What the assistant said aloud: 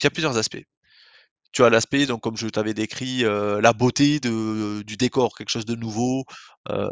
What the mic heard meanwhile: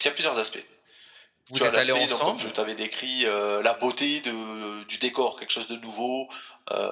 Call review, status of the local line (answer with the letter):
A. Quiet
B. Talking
B